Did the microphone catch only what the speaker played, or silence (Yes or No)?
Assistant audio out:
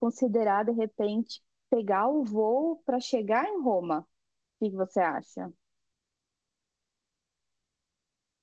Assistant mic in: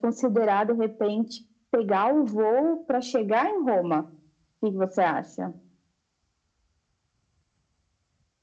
Yes